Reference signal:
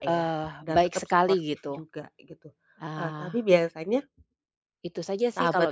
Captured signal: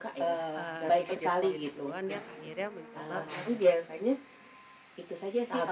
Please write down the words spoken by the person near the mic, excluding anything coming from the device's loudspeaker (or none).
eee, jadi dia sendiri duluan yang akhirnya mencoba untuk